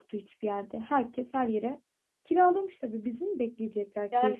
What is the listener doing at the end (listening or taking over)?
taking over